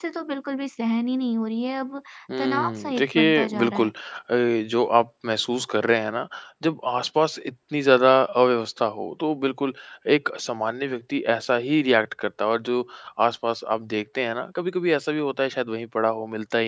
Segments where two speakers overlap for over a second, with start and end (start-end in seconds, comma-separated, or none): 2.4-3.9